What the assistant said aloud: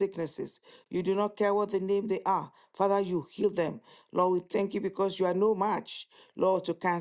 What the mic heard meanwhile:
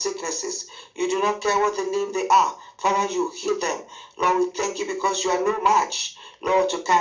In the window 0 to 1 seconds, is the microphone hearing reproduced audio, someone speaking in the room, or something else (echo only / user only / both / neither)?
echo only